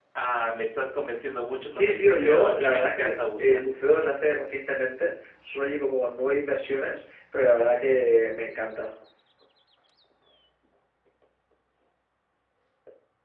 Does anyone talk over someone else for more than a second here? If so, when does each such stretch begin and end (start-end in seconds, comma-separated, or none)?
1.7-3.6